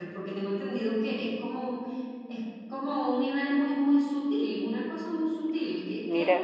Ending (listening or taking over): listening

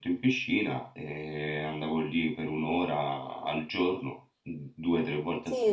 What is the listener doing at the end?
taking over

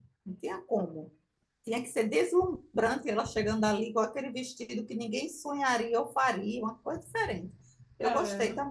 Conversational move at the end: taking over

